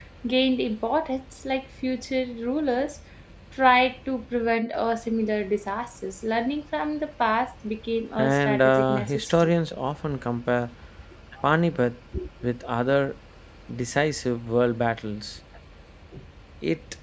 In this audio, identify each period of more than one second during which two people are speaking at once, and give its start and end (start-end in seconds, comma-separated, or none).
8.2-9.5